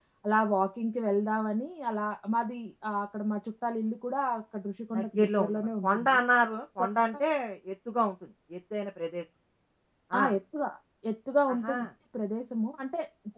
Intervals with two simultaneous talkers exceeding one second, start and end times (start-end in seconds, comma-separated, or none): 5.0-6.2